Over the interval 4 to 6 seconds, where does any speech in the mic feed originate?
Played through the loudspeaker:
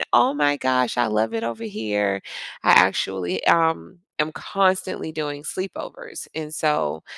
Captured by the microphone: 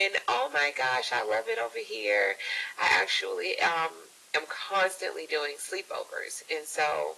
echo only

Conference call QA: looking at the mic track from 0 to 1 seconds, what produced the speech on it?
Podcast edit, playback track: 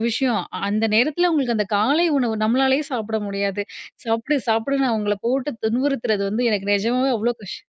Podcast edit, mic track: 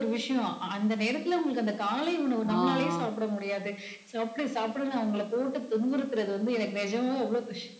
echo only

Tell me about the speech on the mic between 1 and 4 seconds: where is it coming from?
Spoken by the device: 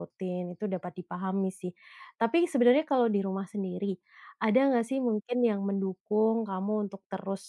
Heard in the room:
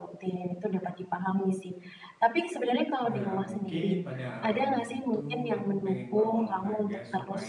both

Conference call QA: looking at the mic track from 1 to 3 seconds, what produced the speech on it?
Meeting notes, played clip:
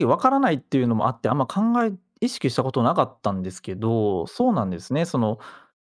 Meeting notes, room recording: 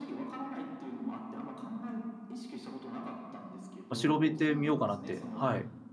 echo only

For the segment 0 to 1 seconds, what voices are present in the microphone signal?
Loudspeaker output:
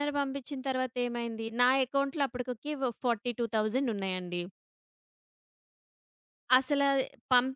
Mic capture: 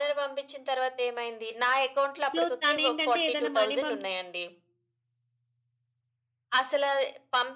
echo only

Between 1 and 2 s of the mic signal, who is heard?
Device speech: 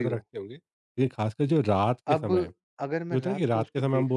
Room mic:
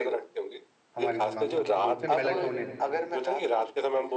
both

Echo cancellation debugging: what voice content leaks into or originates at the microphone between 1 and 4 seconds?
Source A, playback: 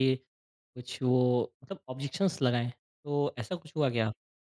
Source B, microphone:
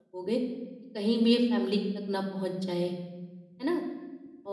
user only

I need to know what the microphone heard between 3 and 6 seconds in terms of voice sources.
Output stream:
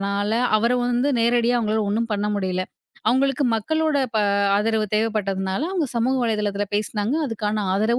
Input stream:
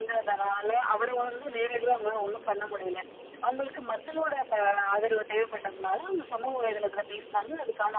echo only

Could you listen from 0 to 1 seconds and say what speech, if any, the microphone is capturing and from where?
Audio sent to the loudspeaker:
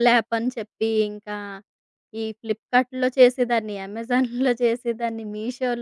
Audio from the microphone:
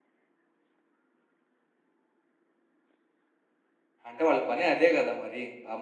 neither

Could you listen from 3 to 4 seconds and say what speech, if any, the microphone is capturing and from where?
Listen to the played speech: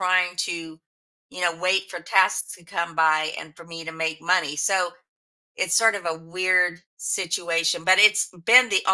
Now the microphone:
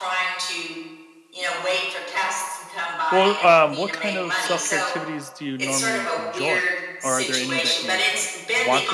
both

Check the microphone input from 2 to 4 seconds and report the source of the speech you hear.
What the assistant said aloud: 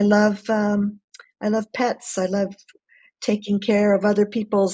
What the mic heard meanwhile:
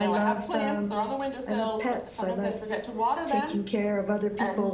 both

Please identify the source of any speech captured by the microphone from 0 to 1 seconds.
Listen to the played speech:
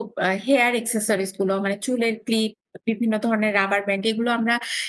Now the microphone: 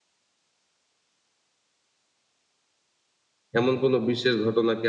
neither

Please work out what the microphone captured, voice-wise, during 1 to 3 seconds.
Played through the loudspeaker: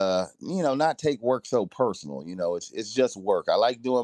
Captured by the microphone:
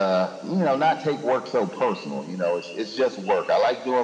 echo only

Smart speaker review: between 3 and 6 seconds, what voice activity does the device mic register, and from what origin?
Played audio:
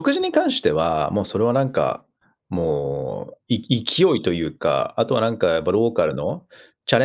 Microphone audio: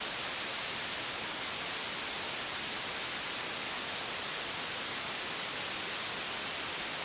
neither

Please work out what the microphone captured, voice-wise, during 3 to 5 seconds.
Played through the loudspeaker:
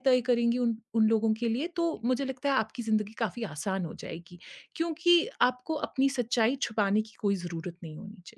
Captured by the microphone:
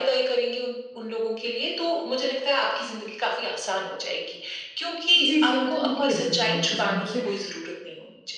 echo only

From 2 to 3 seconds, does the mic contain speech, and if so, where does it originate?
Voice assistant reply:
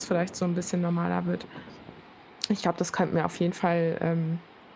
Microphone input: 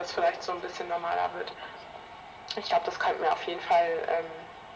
echo only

